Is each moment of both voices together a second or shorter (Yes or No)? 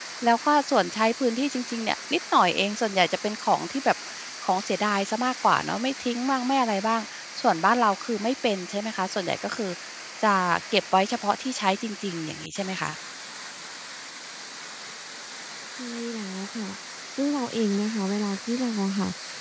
Yes